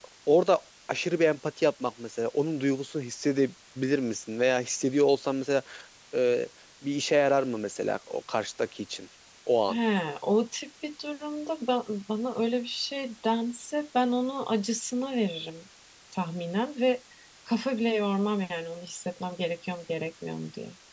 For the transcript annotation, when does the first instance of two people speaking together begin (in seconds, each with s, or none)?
none